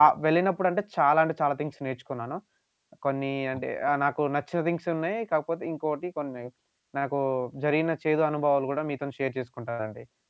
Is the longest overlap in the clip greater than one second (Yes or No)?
No